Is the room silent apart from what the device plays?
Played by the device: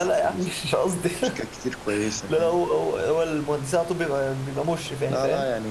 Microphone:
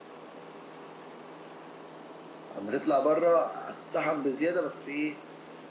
No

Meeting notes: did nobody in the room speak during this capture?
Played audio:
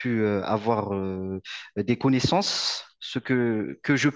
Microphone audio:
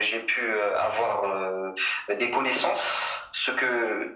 Yes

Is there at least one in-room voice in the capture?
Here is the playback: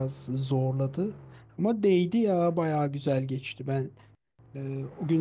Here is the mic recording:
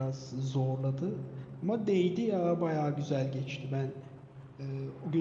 No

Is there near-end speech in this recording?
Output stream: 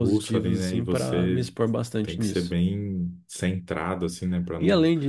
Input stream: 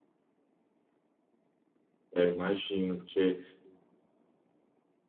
Yes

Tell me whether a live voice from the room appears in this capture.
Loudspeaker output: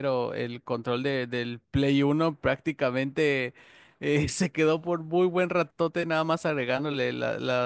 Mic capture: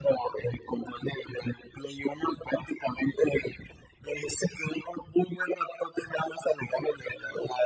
No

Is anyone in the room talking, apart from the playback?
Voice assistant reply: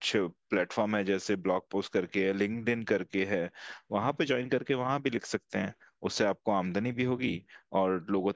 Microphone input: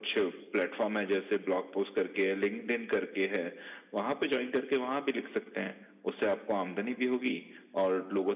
No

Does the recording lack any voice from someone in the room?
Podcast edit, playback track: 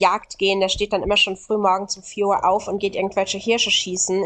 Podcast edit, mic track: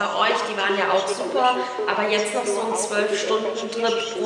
No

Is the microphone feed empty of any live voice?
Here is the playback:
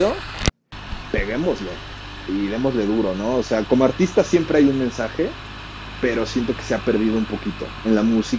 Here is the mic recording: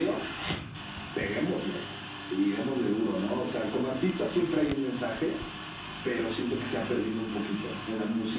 Yes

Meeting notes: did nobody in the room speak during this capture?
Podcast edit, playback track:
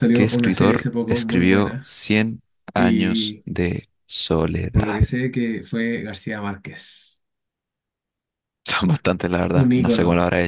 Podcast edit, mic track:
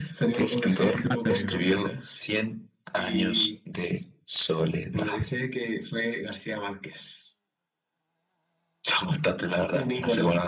No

